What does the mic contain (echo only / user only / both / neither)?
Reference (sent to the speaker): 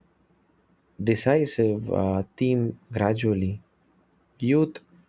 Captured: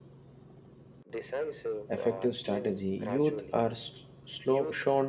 both